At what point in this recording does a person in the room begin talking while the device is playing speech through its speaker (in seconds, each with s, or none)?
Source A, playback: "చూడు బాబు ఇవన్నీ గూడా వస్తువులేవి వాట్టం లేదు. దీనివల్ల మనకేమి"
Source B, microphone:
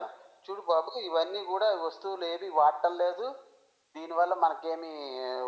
none